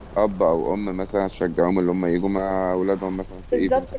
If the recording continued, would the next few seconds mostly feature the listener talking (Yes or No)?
Yes